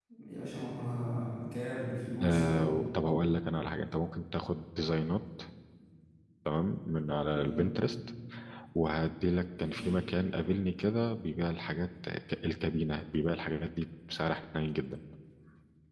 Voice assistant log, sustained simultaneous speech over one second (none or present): none